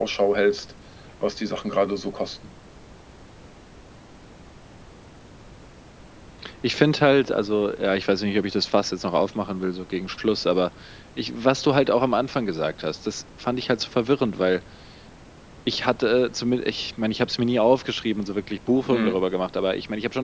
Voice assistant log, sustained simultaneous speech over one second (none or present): none